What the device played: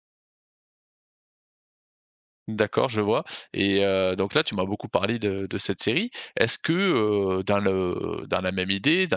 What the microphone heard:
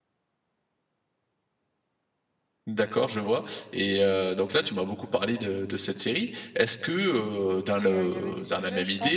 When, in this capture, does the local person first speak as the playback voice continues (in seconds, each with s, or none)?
7.8 s